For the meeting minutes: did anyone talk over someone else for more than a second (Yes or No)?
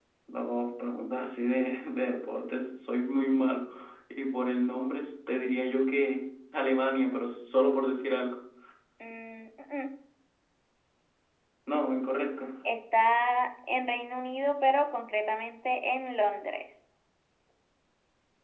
No